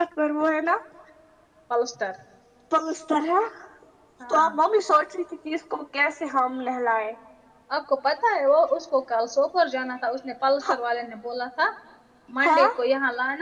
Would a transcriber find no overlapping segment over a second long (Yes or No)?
Yes